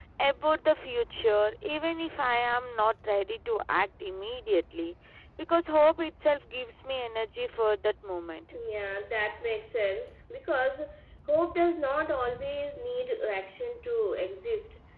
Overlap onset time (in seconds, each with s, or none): none